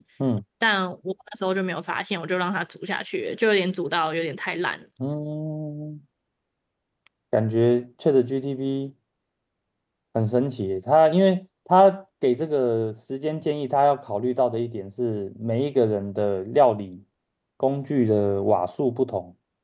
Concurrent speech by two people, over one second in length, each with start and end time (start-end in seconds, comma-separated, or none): none